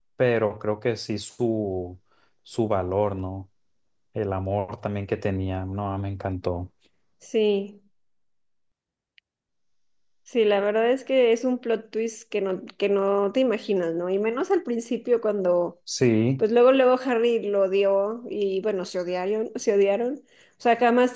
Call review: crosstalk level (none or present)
none